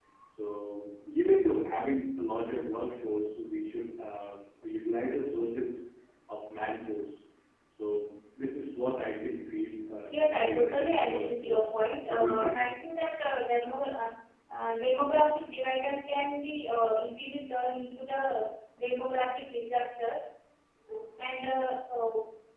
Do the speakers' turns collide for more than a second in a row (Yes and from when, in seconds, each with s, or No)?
Yes, from 10.1 s